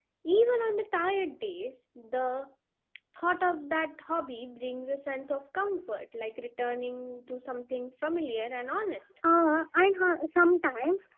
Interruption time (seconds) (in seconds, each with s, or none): none